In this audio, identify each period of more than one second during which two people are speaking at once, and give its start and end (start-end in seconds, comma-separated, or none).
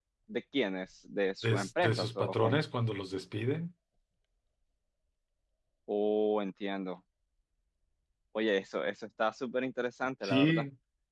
1.4-2.6